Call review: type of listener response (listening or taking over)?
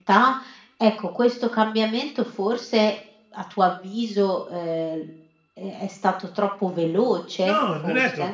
taking over